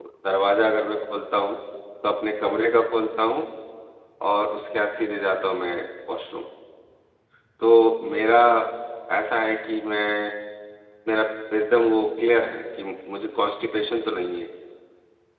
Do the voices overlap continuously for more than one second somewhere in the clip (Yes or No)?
No